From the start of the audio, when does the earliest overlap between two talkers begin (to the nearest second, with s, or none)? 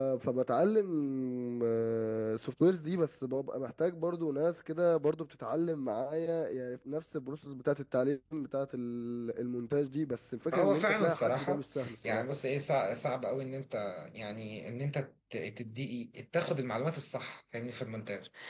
11 s